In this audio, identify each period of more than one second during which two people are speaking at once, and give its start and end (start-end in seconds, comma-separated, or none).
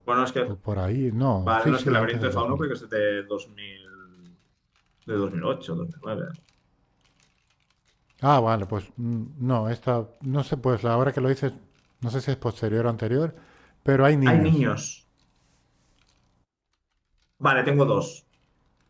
1.4-2.6